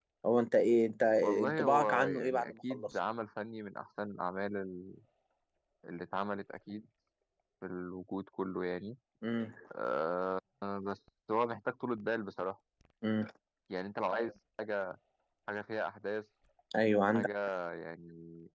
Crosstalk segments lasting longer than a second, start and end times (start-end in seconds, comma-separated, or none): 1.4-2.9